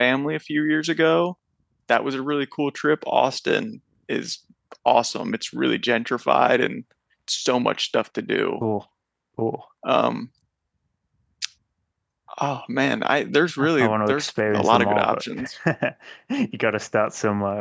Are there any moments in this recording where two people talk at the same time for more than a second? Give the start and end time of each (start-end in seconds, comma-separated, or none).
13.8-15.5